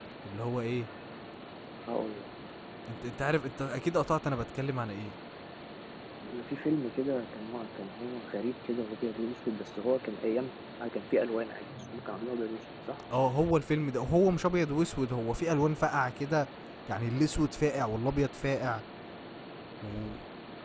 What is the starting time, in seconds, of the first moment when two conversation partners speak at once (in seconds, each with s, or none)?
none